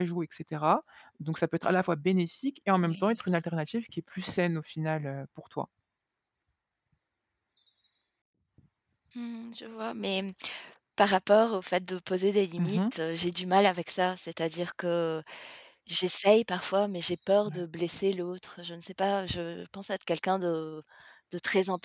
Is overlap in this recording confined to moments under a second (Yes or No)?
Yes